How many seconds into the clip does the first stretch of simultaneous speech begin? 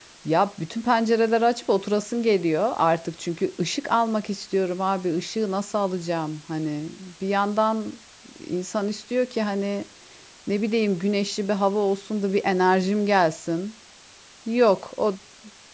none

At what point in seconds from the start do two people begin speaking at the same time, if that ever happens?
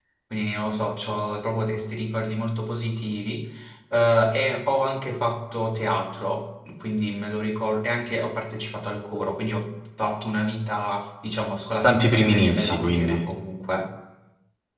11.8 s

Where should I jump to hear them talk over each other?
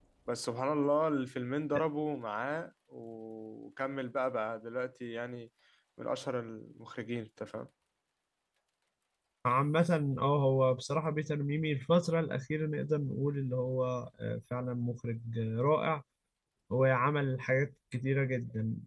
none

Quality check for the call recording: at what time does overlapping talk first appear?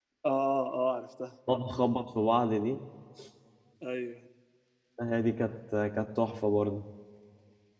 none

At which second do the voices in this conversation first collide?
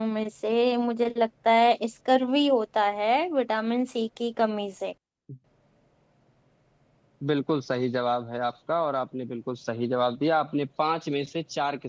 none

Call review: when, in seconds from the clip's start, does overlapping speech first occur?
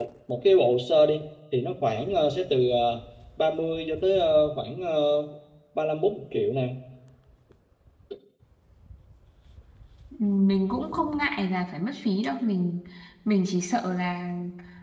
none

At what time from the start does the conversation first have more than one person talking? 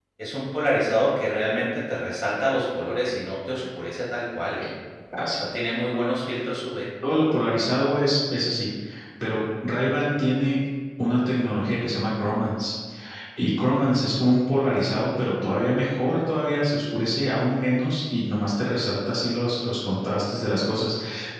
none

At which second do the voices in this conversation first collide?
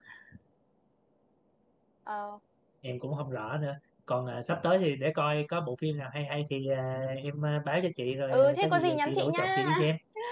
8.3 s

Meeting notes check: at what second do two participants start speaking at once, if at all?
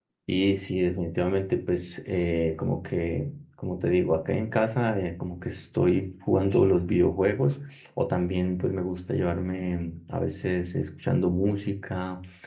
none

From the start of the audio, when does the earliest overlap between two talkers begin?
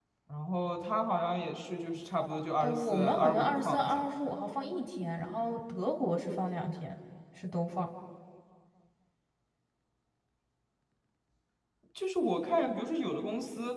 2.6 s

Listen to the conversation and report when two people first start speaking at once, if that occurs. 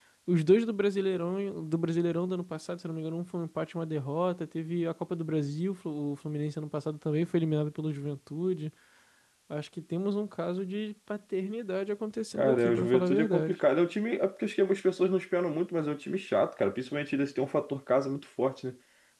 12.3 s

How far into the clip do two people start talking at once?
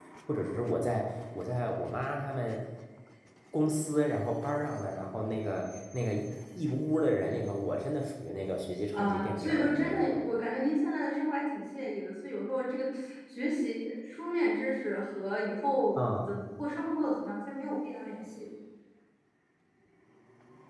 8.9 s

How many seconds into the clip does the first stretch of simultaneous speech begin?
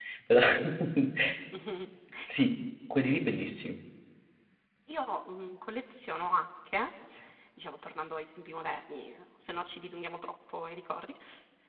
none

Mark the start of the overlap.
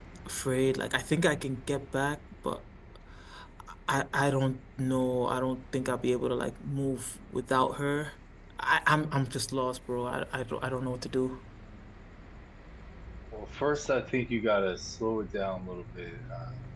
none

